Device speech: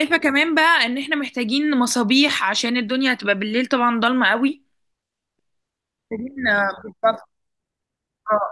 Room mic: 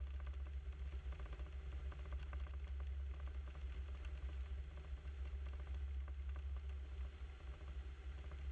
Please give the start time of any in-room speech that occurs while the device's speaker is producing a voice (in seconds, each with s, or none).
none